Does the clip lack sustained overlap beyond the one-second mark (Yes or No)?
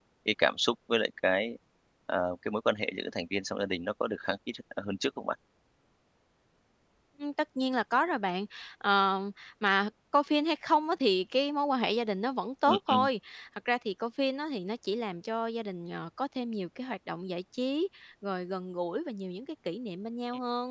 Yes